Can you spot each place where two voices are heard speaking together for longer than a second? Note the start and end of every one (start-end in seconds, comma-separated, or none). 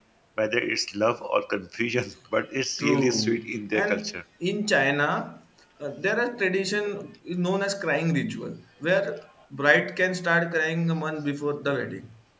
2.8-4.2